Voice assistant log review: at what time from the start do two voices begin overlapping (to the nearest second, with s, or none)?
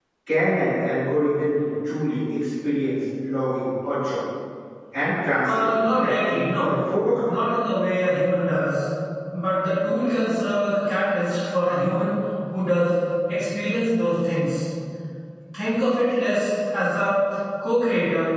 5 s